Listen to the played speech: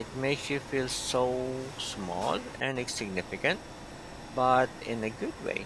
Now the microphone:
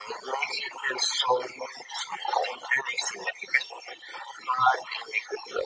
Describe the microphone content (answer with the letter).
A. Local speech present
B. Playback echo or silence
B